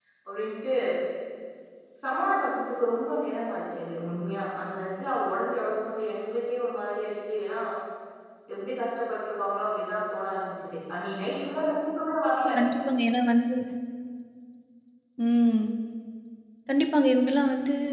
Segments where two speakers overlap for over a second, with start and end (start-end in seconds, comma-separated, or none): none